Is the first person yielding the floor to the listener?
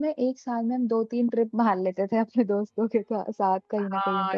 Yes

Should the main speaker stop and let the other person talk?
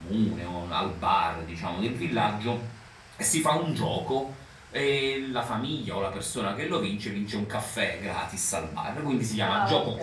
No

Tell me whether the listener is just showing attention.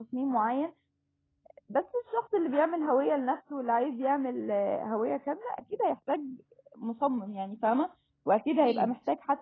Yes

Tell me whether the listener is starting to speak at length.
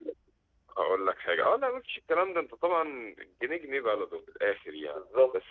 No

